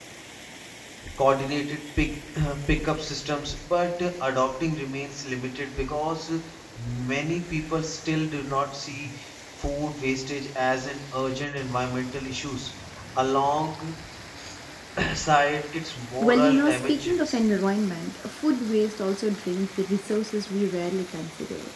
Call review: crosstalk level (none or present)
present